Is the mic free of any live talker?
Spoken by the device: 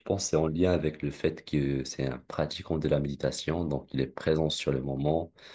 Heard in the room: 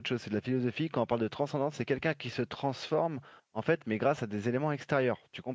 No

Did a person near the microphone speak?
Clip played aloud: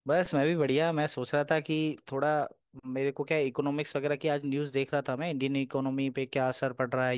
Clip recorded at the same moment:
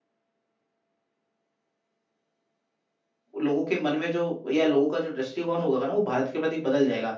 Yes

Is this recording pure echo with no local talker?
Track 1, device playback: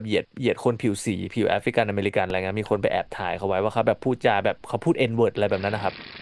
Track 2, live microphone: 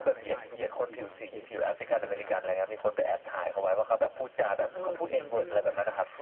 No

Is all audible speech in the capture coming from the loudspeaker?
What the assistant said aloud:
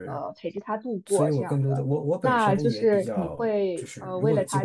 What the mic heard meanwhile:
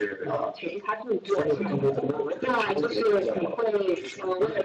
No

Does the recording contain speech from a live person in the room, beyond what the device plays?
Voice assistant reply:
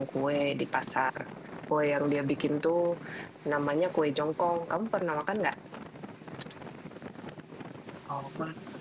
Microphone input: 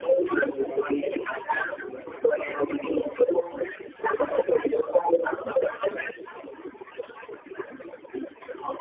No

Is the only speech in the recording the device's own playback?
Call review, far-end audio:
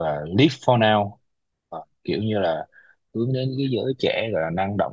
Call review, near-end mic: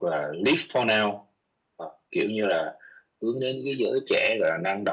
Yes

